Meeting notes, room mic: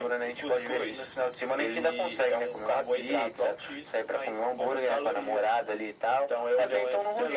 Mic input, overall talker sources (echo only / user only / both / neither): echo only